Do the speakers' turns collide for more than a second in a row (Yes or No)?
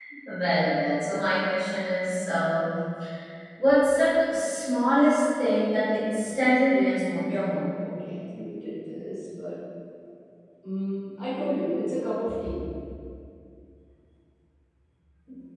No